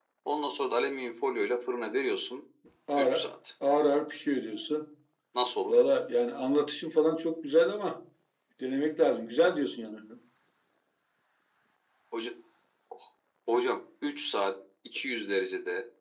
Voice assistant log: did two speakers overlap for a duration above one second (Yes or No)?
No